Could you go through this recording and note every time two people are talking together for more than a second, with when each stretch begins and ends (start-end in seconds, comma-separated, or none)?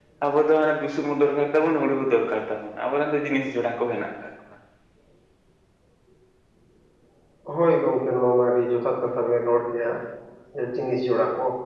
none